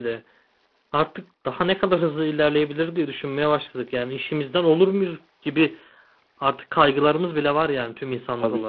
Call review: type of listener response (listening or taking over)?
taking over